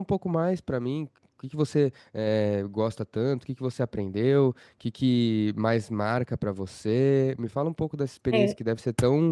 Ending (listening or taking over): listening